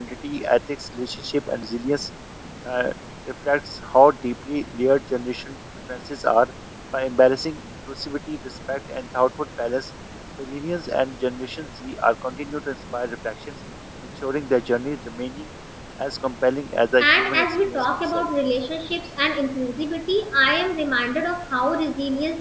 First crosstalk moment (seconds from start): 17.0 s

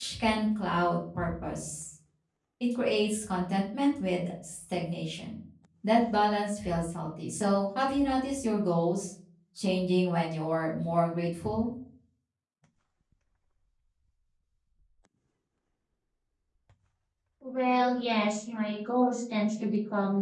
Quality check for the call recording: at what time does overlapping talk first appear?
none

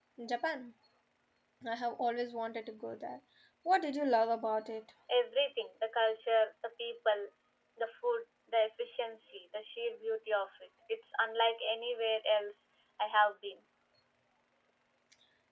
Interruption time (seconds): none

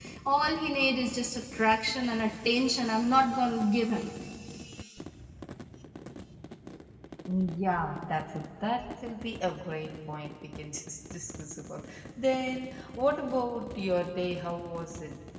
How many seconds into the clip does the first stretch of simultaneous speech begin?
none

